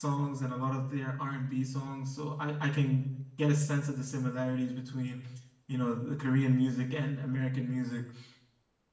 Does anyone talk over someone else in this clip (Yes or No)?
No